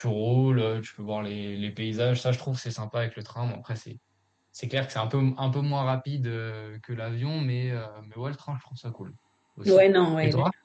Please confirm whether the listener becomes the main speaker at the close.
Yes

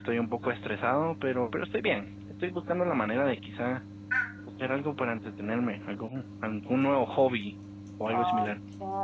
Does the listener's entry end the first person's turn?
Yes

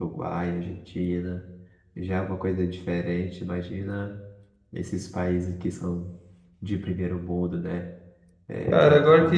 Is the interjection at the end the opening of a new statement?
Yes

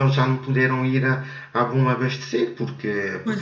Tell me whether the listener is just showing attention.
Yes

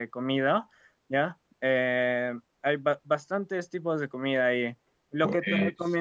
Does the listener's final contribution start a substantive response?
No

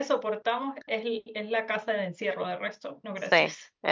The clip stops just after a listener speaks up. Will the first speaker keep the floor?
No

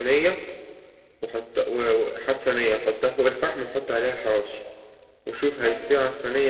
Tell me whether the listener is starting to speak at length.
No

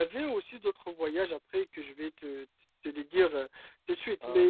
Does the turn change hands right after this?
No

